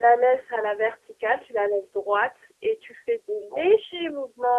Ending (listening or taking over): listening